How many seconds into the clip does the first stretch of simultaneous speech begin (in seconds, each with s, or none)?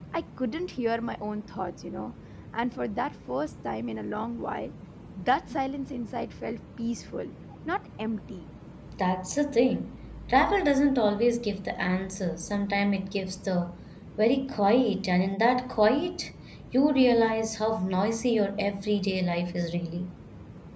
none